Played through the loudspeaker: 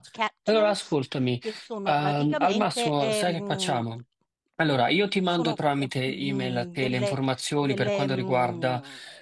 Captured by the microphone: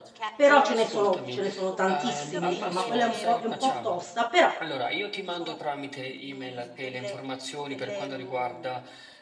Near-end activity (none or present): present